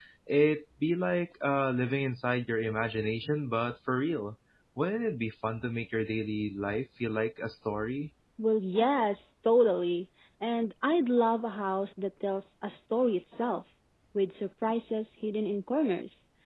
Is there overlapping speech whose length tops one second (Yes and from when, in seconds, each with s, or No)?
No